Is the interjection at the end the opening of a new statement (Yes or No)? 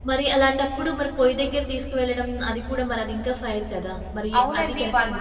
Yes